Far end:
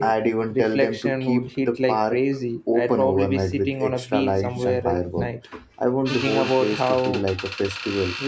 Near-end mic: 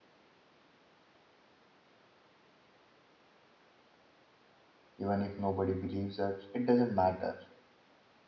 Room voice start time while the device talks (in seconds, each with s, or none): 5.0 s